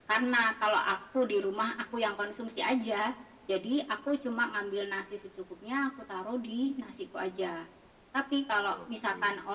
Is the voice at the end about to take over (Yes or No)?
No